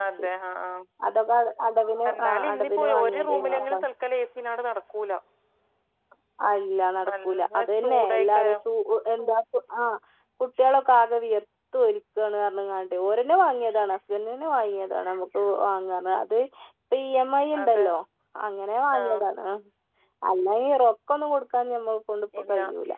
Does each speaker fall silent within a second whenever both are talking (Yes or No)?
No